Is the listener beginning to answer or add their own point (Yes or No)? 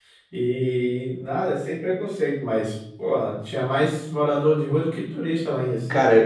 Yes